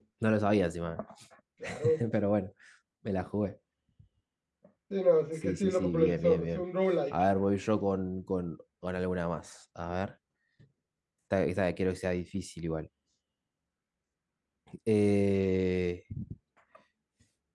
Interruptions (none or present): present